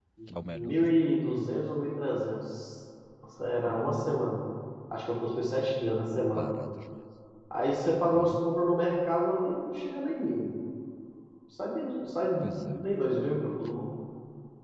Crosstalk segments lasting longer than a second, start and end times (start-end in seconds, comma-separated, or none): none